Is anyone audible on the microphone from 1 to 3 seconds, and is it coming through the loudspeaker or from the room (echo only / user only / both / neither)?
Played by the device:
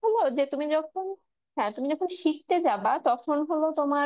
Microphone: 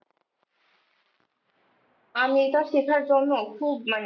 user only